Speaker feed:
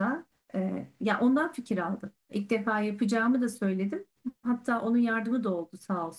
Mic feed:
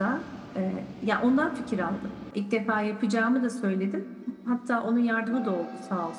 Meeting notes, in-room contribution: none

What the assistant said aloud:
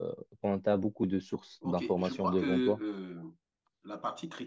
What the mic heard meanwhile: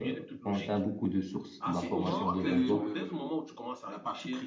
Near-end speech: present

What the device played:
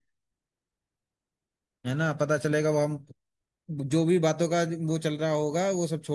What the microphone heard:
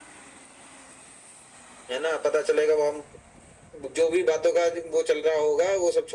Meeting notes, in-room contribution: none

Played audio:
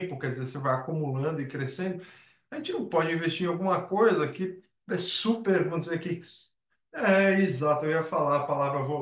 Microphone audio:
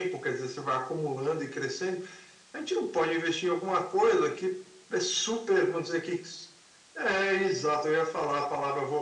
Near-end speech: none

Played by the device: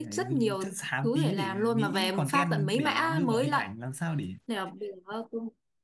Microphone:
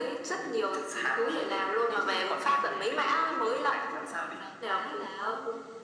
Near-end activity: present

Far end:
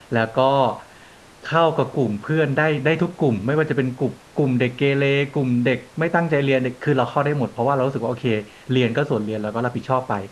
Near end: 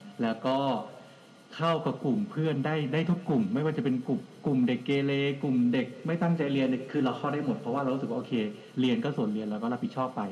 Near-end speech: none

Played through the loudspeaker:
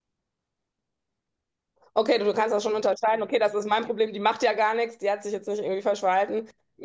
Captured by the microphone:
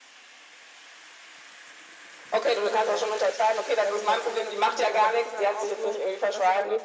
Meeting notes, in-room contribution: present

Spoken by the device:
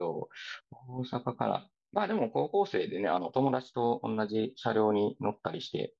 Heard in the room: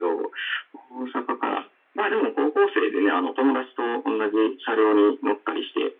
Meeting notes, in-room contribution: none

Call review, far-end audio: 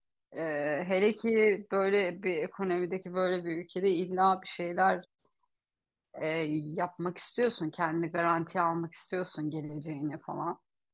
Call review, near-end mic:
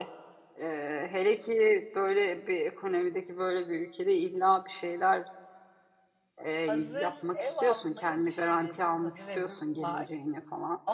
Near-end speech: present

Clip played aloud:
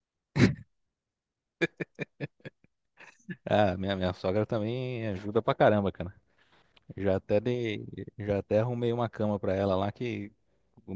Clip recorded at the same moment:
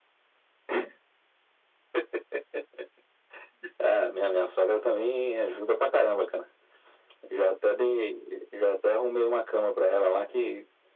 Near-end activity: none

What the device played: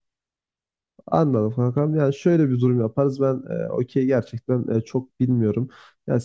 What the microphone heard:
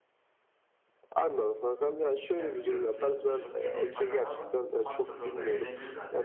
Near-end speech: present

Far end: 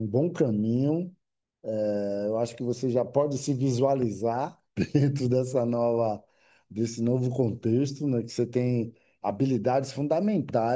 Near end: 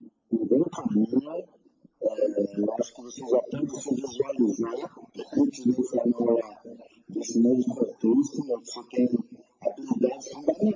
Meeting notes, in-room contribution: none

